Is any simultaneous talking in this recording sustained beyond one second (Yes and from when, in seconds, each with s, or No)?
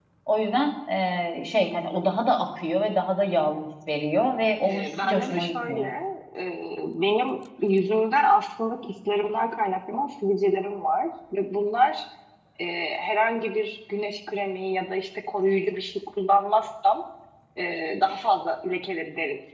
Yes, from 4.6 s